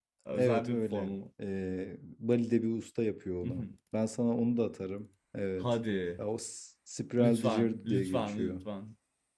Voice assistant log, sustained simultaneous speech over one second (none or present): present